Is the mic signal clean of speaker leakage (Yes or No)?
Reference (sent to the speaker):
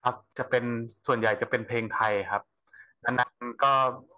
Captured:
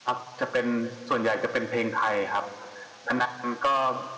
No